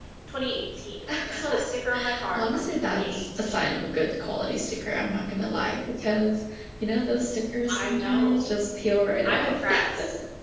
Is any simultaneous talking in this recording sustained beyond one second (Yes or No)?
Yes